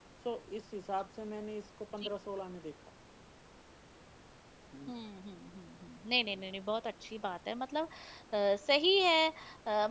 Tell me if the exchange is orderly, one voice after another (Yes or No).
Yes